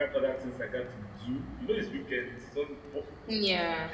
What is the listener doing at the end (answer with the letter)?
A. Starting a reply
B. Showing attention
B